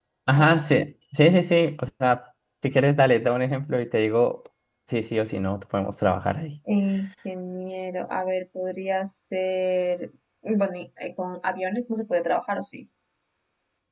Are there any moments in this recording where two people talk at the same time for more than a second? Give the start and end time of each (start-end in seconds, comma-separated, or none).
none